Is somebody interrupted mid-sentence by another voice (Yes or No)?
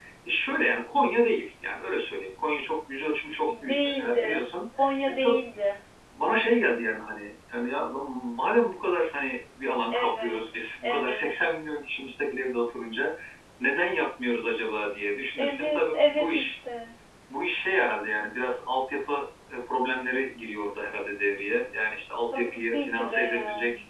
Yes